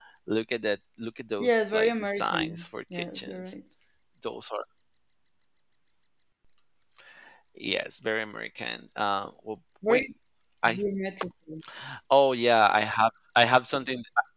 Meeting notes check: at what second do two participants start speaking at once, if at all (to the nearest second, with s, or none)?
1 s